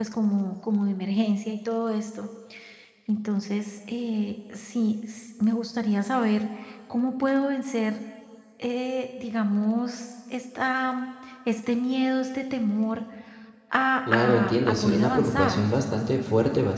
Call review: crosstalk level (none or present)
present